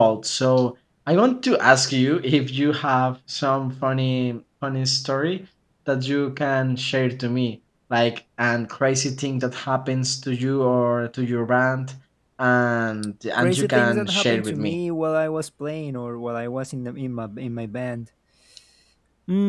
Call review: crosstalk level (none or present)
present